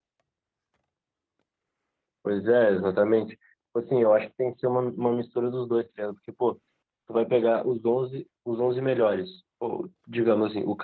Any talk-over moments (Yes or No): No